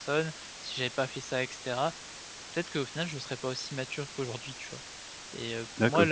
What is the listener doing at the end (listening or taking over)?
listening